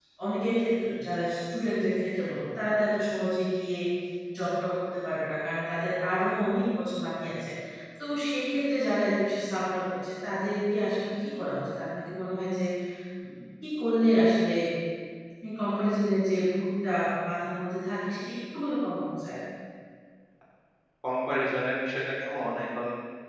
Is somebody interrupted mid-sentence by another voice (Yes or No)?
No